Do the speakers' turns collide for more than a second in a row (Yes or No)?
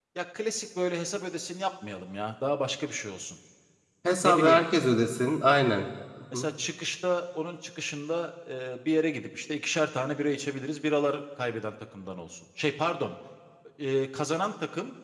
No